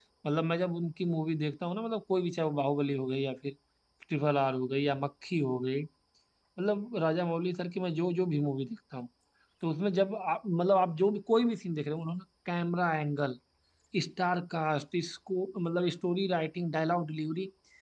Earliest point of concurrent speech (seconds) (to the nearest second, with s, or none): none